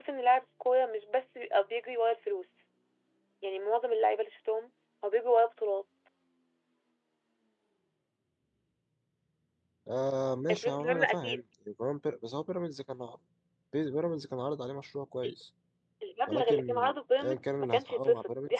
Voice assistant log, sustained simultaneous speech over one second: present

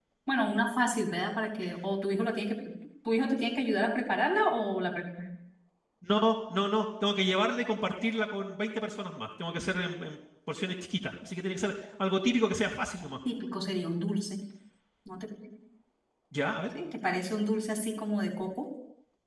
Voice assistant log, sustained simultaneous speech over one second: none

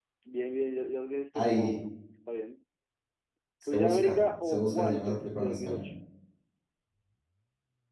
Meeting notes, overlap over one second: present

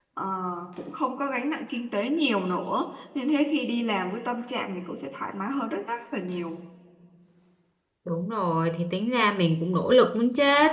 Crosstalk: none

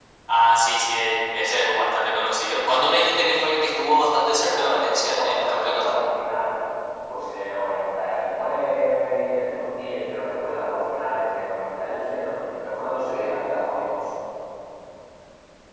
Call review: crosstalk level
present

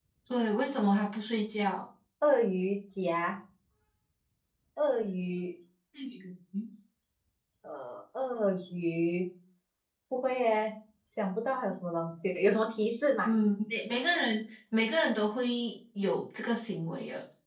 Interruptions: none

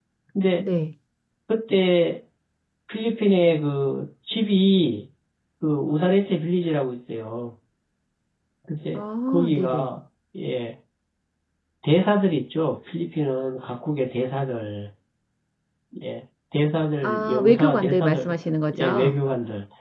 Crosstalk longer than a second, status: present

